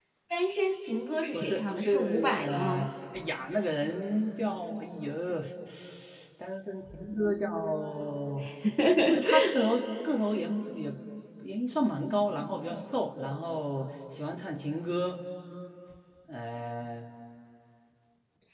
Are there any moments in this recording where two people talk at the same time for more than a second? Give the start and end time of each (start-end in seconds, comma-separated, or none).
1.3-2.9